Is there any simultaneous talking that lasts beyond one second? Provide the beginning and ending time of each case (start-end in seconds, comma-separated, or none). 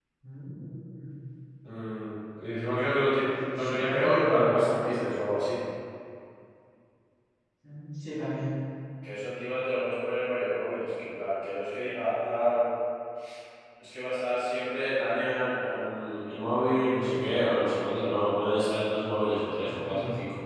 3.2-4.5